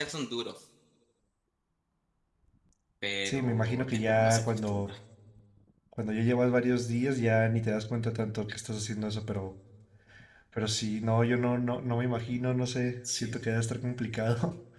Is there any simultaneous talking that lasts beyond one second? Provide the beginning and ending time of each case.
3.2-4.9

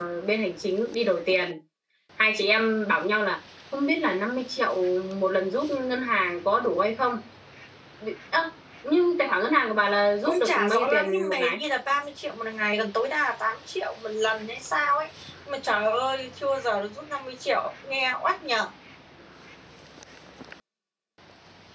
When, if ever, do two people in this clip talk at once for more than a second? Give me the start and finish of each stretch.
10.2-11.6

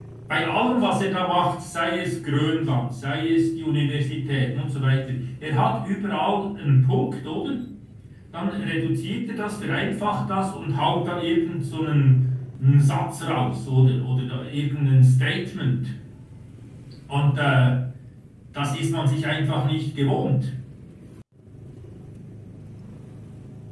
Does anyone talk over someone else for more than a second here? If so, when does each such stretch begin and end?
none

